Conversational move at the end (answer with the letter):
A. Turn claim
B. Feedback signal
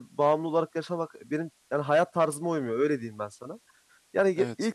B